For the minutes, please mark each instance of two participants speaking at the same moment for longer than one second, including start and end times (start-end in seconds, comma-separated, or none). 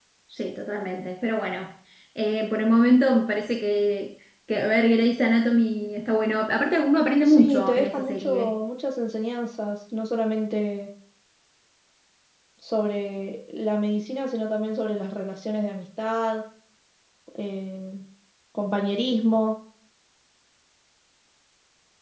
7.2-8.6